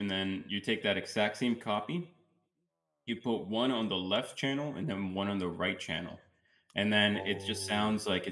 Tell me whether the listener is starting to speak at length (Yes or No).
No